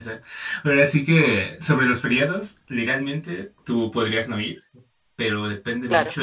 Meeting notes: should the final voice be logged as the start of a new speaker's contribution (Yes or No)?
No